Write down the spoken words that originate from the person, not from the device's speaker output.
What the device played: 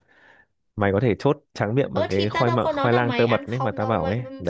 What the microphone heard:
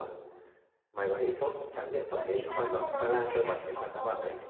none

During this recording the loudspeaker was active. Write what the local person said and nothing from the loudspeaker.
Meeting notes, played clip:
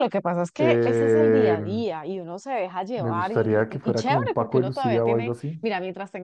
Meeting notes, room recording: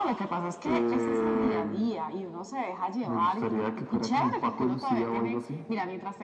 none

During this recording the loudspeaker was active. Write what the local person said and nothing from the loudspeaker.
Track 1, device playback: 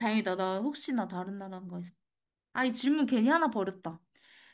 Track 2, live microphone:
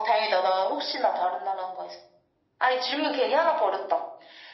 none

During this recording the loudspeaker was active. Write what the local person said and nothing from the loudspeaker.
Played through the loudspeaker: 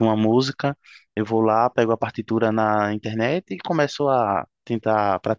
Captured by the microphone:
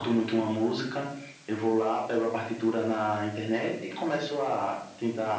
none

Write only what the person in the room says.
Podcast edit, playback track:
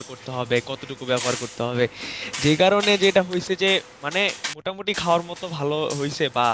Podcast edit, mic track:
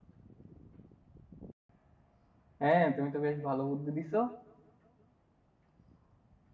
হ্যাঁ তুমি তো বেশ ভালো বুদ্ধি দিছো

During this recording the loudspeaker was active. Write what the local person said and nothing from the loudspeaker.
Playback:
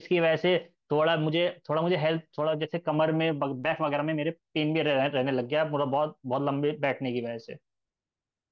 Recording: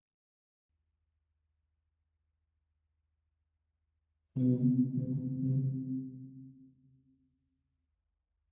हम्म हम्म हम्म

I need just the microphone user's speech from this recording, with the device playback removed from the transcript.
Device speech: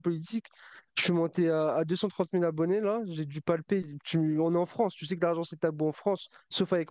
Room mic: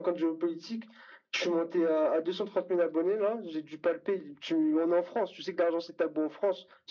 none

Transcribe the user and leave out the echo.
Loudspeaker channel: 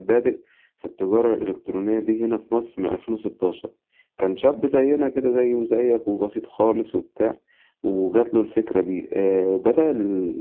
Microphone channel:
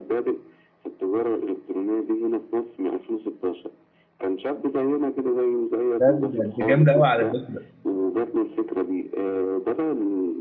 لا ده انت جامده قوي على فكره

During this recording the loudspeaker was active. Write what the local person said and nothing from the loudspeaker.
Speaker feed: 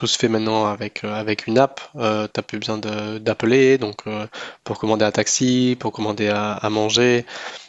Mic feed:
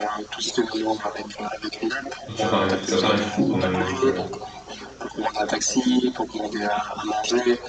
Ça paraît, ça paraît fou quand même, hein, ça.

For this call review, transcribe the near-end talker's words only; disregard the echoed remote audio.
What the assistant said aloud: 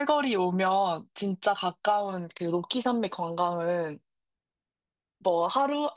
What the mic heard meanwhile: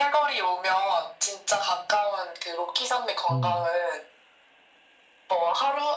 음.

